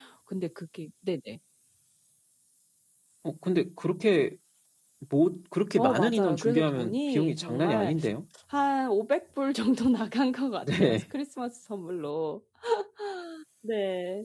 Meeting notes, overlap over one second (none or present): present